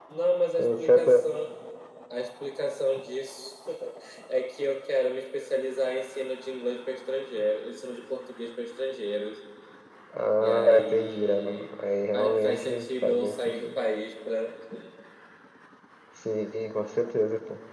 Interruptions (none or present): present